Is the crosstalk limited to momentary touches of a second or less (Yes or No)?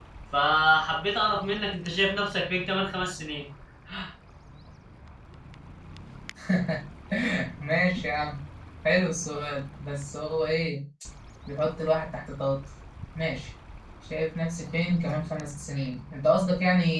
Yes